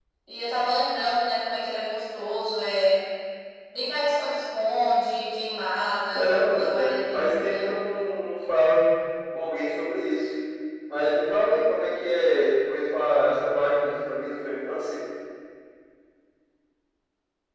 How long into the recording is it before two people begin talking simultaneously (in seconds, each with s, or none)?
6.1 s